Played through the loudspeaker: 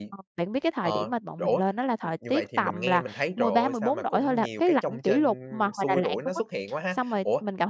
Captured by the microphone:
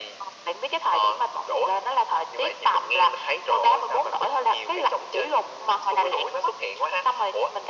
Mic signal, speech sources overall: echo only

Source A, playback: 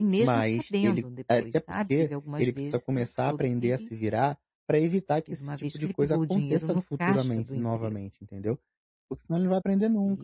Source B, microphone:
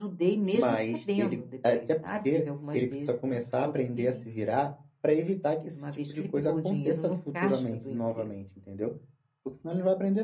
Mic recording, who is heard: echo only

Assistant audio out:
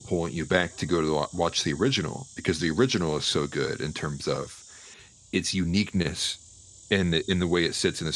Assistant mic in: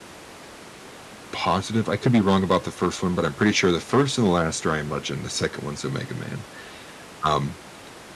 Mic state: user only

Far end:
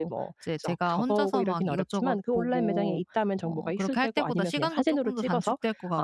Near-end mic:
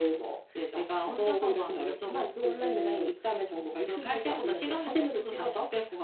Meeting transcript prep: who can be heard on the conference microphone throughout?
echo only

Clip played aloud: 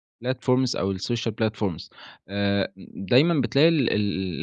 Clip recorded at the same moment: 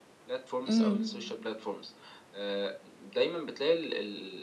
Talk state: both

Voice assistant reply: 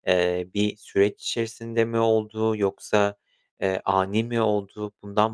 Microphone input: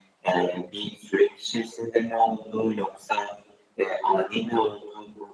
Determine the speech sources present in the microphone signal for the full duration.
echo only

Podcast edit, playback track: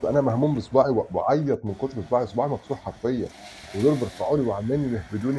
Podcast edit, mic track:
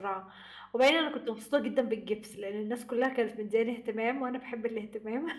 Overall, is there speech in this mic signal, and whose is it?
user only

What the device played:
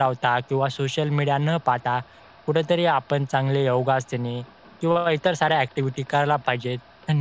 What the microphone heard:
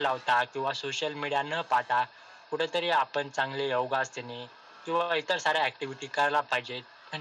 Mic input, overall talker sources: echo only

